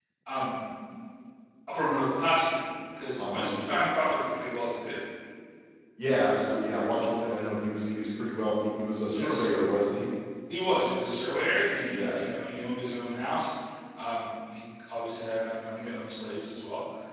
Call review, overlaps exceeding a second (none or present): none